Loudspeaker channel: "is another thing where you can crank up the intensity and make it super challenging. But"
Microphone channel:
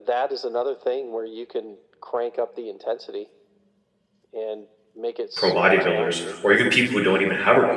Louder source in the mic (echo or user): user